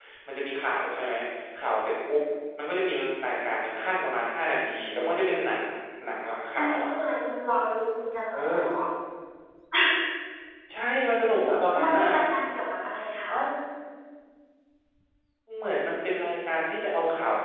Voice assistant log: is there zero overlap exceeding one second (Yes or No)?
Yes